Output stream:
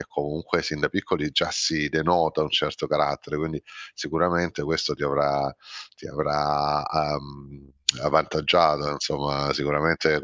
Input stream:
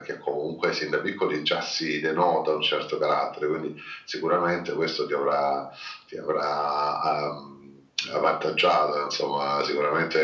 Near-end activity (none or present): none